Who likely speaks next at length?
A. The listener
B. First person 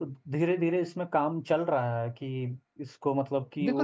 A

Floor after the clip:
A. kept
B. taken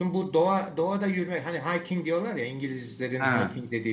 A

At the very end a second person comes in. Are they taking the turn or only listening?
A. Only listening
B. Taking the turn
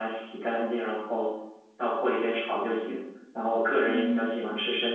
A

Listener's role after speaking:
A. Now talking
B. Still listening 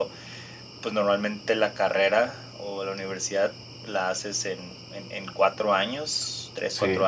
B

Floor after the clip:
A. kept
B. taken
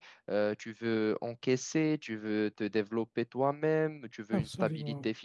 A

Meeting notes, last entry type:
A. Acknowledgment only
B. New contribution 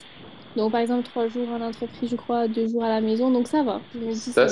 B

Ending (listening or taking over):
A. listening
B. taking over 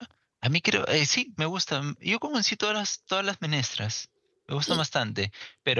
A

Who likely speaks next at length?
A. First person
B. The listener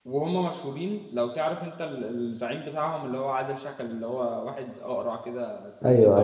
B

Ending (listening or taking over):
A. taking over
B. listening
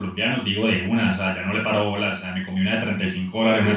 A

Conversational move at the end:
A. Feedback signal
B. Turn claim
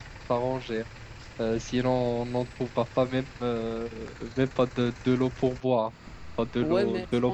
B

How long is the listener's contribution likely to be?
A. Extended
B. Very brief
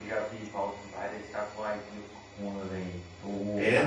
B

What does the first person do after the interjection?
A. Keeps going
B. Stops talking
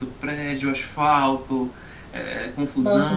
A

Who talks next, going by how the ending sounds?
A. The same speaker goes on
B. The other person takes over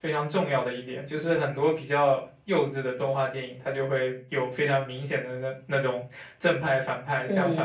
A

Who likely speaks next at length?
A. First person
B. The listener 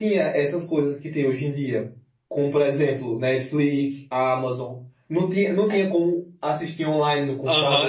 B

